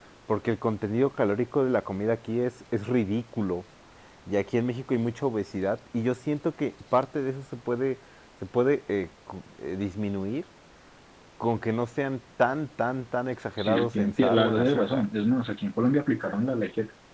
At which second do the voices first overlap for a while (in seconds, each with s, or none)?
13.6 s